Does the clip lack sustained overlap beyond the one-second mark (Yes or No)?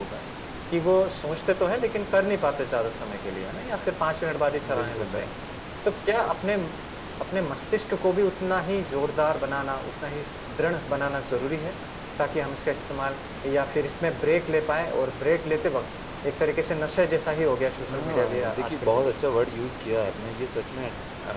No